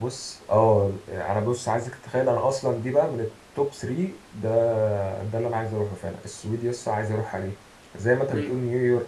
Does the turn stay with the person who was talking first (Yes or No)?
Yes